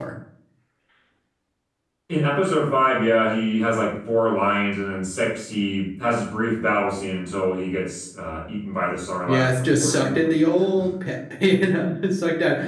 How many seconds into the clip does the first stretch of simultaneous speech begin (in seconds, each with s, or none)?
9.3 s